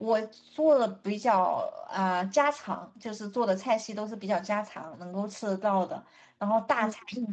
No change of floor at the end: Yes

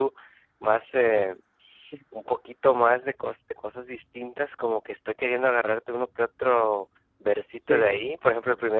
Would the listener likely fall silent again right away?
Yes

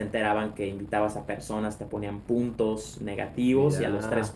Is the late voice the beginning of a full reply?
No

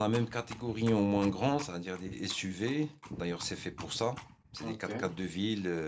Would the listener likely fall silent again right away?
Yes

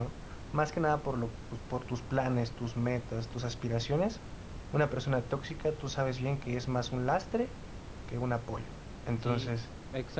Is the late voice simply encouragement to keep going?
No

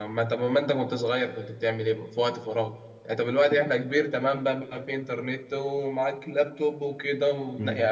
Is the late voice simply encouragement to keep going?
Yes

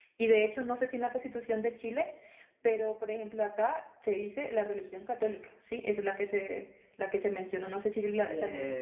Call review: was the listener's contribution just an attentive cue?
No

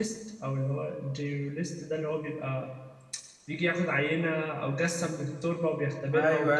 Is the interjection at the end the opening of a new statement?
Yes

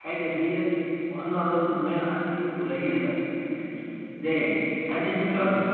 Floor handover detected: No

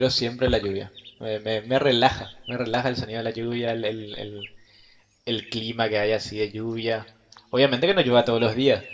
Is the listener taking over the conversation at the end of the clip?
No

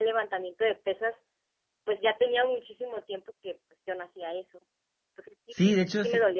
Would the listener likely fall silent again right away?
No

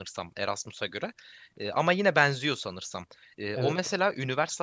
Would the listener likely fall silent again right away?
Yes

